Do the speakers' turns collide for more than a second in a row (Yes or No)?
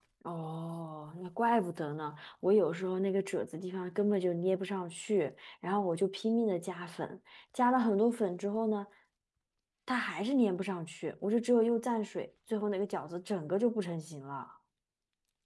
No